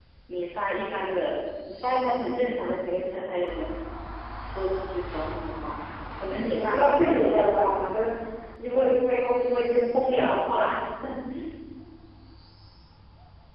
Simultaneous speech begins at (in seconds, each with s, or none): 6.3 s